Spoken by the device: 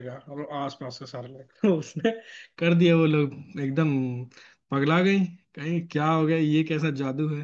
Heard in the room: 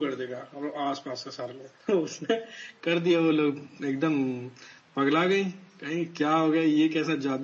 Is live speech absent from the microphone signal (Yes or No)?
Yes